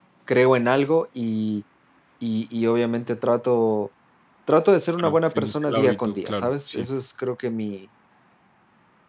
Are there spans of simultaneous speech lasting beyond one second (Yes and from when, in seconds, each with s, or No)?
Yes, from 5.0 s